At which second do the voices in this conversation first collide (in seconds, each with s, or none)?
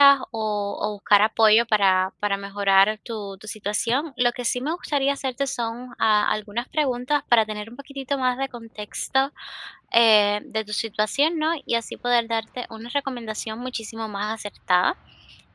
none